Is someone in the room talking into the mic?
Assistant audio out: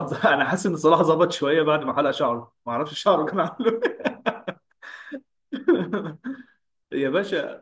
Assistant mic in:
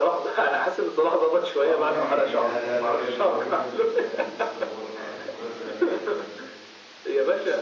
Yes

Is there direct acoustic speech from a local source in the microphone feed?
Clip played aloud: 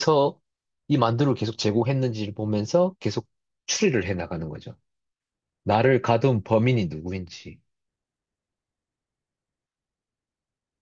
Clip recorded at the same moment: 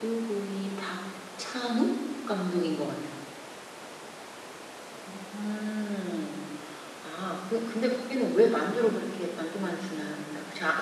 Yes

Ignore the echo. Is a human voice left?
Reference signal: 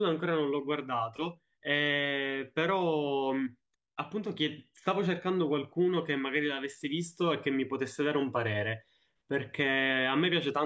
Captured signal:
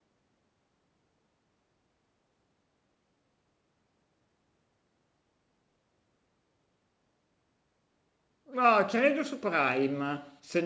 Yes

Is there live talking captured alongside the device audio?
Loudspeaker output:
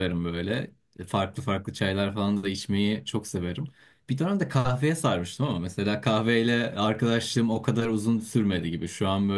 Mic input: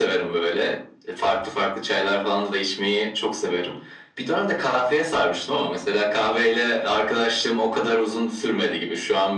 No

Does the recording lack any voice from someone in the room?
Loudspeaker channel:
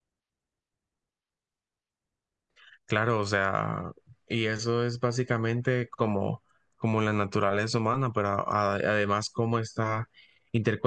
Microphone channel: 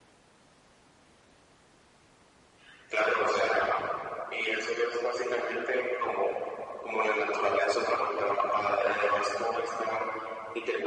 Yes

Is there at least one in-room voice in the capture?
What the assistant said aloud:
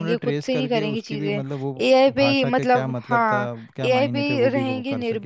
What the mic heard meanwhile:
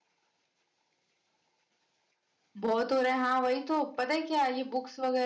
Yes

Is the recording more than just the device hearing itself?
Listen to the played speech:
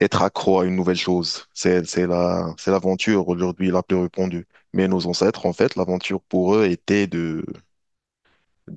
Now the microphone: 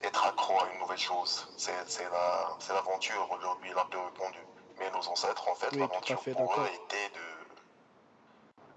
Yes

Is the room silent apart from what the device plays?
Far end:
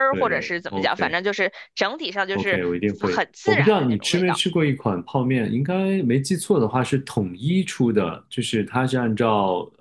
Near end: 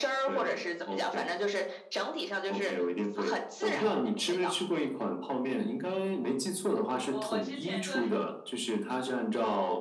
No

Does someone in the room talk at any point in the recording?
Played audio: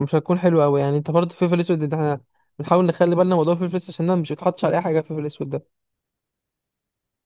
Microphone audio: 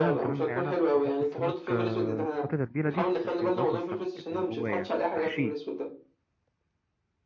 Yes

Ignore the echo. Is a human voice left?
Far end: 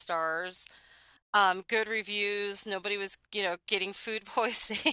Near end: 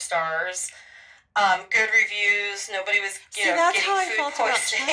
Yes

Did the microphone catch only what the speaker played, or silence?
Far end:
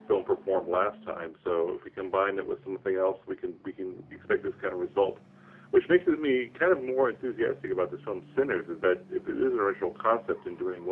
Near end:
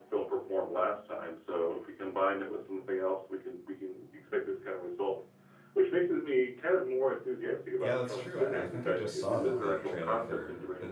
No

